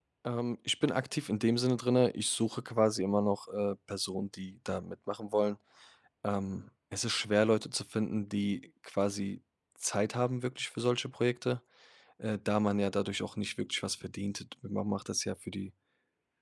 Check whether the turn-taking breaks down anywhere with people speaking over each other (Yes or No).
No